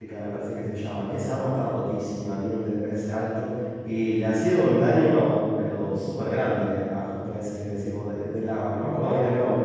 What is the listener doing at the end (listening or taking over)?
taking over